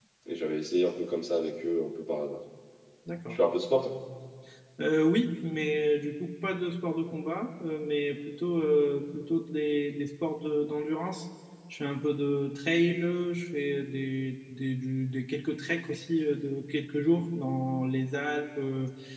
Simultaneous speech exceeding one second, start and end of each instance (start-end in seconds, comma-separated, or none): none